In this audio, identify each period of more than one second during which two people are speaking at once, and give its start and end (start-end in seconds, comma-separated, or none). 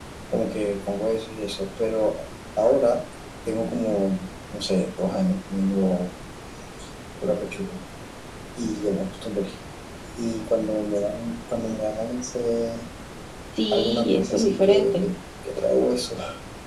13.7-15.1